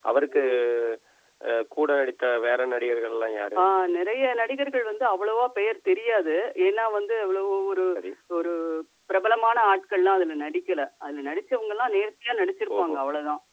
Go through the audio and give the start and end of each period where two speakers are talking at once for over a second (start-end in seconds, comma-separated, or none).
none